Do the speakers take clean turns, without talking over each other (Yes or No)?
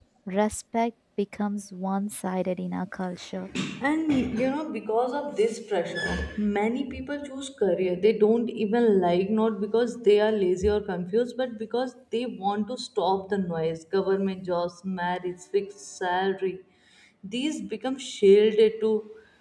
Yes